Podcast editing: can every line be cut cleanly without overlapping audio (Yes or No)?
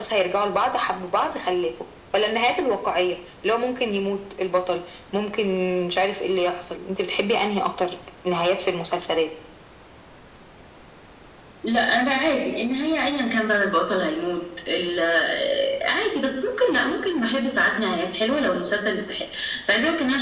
Yes